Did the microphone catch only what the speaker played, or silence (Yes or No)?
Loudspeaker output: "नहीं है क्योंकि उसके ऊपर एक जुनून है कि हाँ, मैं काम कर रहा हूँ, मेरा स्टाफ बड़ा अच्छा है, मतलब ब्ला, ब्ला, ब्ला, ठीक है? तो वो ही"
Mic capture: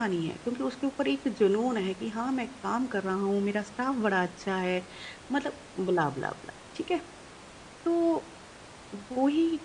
Yes